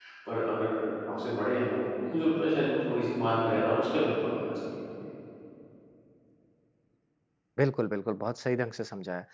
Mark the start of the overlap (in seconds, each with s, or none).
none